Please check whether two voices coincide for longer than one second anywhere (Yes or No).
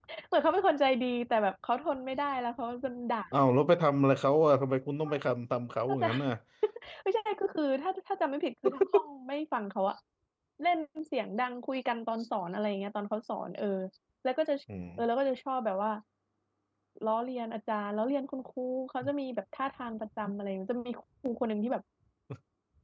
No